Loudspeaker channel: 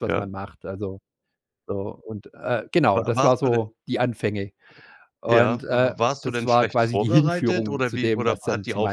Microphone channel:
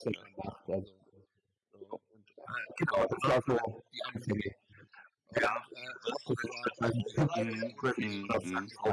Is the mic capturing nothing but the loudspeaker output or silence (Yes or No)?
No